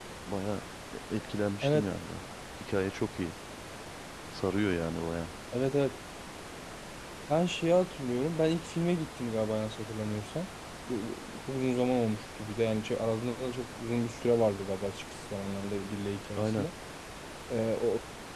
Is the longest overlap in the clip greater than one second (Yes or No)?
No